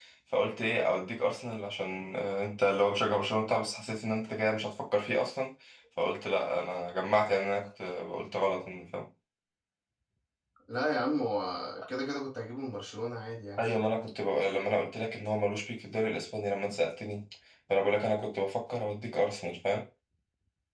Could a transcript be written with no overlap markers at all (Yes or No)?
Yes